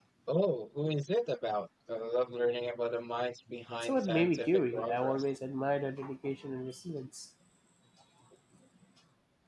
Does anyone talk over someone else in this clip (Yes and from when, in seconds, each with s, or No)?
Yes, from 3.8 s